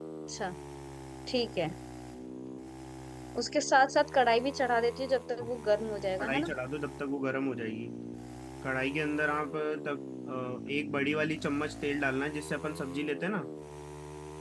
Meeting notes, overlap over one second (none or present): none